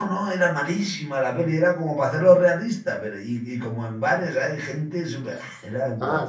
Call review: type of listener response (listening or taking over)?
taking over